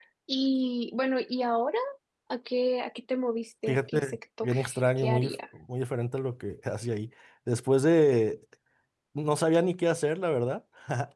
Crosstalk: present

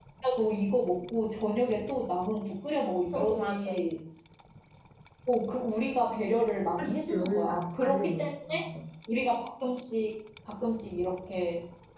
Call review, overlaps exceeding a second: present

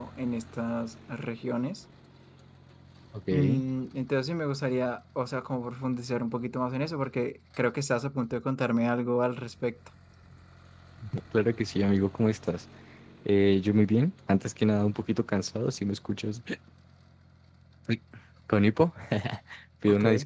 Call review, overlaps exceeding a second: none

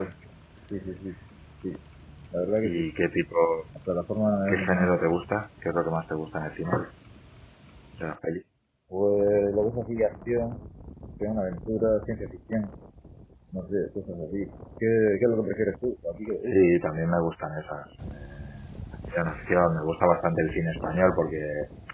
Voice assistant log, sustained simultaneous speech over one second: none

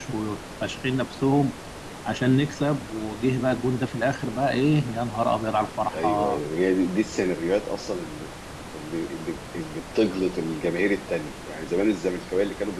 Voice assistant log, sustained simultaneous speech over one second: none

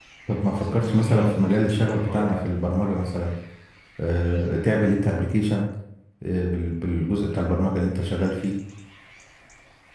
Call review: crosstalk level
present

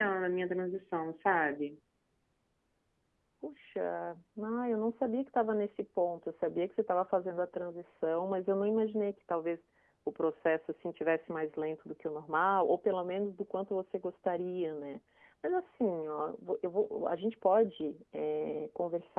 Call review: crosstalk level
none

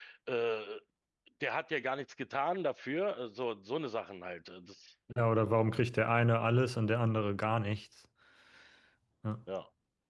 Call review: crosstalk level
none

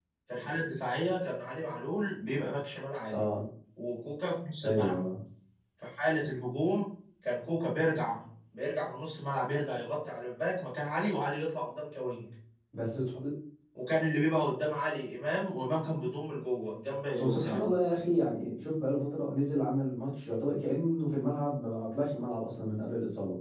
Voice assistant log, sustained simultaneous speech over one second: none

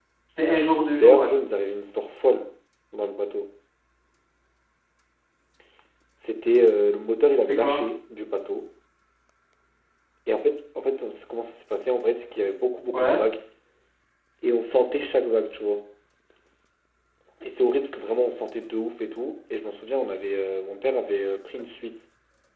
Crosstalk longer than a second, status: none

